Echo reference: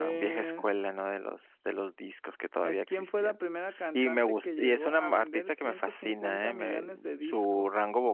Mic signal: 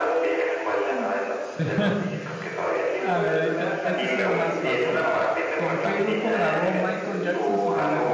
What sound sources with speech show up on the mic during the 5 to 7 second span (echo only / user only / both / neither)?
both